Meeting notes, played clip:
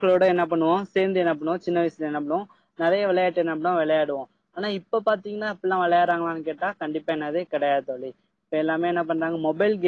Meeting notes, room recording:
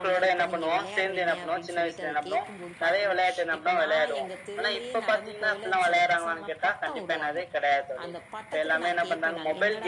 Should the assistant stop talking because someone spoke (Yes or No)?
Yes